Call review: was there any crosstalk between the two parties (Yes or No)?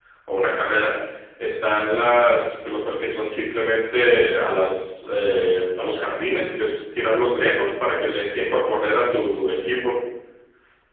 No